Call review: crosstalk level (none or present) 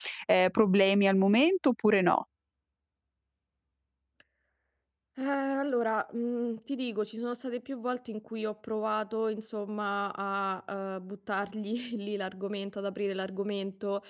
none